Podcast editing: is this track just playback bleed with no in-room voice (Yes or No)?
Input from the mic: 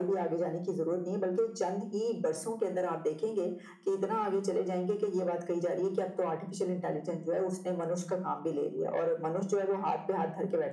Yes